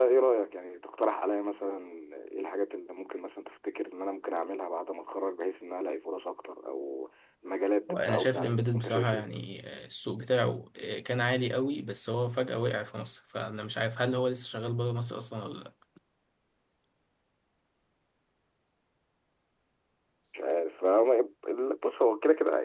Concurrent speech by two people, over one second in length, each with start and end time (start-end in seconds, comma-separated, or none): 7.9-9.2